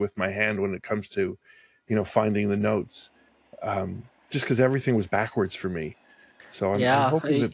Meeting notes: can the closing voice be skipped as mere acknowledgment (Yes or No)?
No